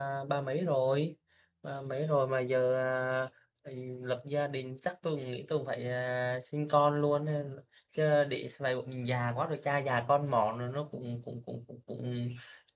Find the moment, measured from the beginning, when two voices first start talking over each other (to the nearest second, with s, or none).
none